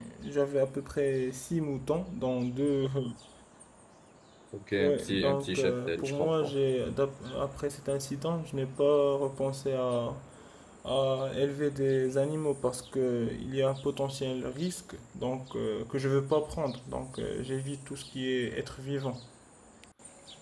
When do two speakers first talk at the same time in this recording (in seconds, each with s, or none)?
4.8 s